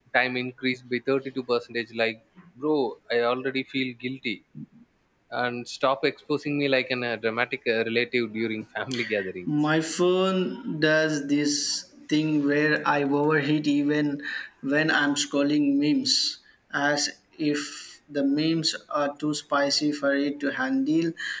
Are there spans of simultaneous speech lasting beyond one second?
No

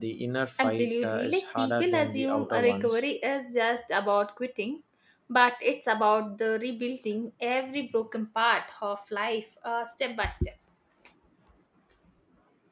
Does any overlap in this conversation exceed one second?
Yes, from 0.6 s

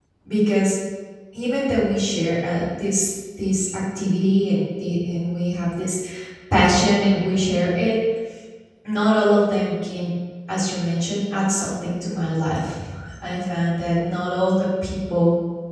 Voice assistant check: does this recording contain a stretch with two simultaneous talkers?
No

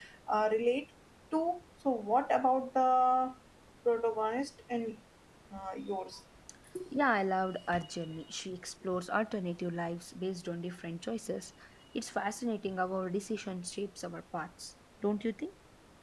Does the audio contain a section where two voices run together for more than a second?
No

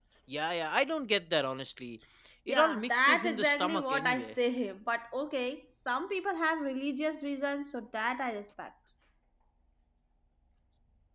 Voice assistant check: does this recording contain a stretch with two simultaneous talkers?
Yes, from 2.5 s

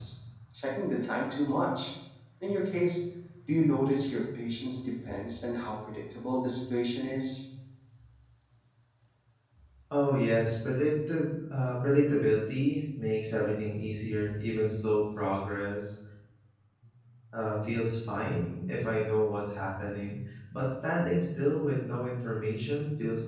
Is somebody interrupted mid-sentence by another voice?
No

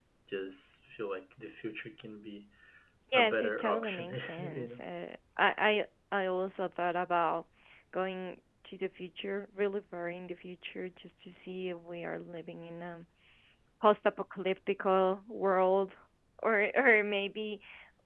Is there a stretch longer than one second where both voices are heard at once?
Yes, from 3.1 s

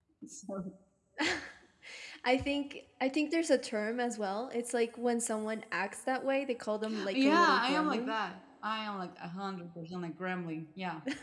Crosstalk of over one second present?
Yes, from 6.8 s

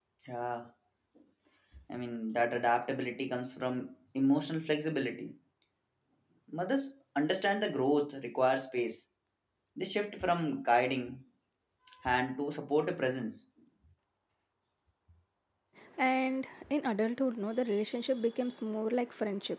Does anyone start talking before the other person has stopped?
No

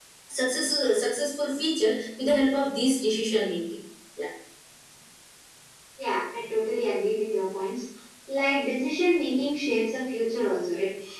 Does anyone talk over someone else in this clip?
No

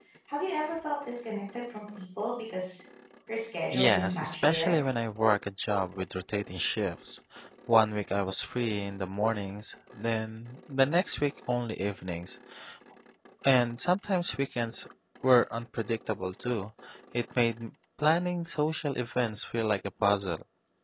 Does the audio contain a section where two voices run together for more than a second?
Yes, from 3.7 s

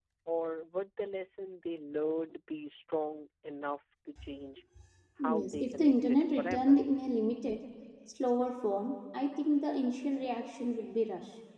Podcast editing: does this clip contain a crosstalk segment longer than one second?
Yes, from 5.2 s

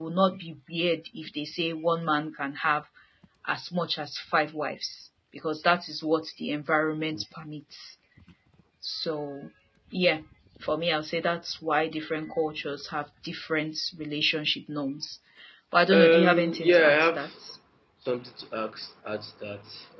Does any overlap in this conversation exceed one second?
Yes, from 15.9 s

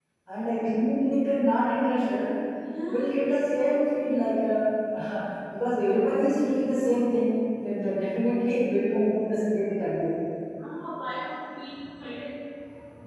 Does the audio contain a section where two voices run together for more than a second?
No

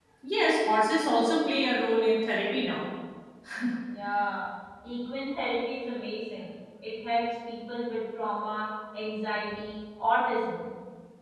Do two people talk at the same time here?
No

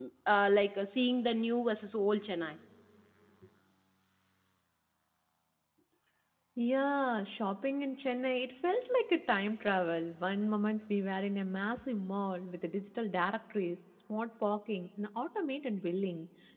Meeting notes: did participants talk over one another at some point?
No

